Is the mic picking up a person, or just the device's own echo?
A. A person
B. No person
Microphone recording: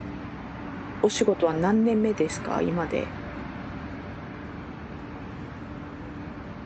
A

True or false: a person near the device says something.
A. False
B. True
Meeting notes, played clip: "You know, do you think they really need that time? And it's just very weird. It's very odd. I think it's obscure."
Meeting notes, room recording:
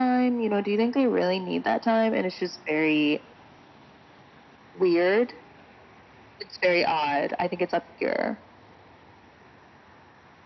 A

